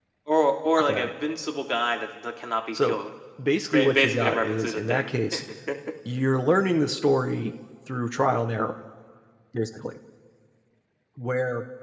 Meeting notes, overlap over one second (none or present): present